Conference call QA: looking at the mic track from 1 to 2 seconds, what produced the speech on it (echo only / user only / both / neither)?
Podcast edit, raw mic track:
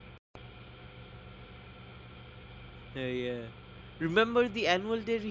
neither